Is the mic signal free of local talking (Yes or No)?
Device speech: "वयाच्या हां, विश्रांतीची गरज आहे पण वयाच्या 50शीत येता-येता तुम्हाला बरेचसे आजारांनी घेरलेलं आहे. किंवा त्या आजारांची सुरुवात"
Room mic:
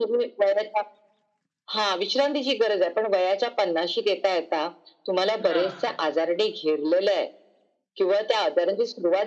No